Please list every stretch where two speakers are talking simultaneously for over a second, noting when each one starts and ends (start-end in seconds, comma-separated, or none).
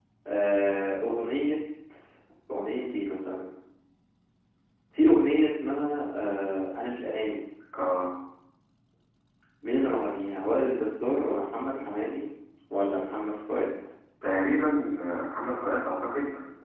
none